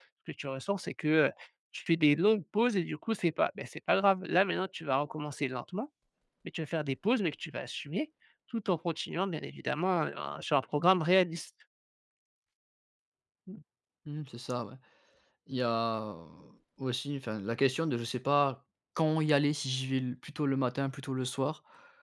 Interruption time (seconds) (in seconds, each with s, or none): none